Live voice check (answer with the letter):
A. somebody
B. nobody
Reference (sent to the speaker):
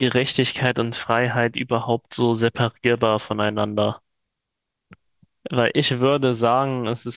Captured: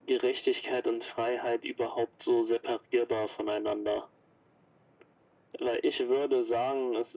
B